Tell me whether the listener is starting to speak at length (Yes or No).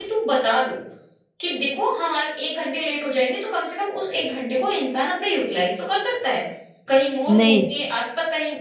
No